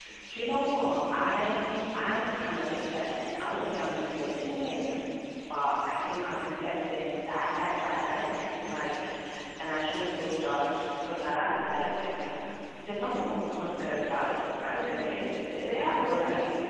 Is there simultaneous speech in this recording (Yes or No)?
Yes